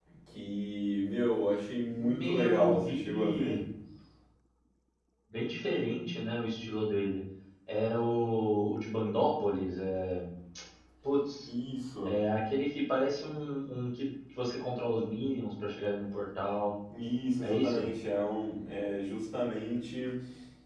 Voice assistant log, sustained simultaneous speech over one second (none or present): present